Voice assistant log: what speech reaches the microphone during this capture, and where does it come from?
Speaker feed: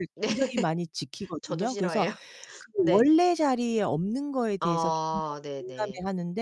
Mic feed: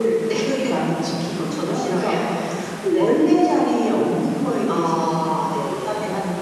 echo only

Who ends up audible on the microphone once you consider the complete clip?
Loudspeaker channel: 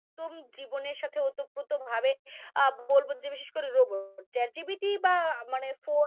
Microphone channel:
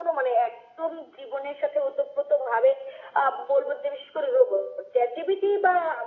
echo only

